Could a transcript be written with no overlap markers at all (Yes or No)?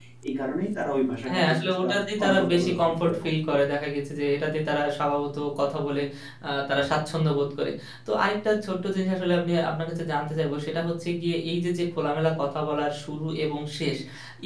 No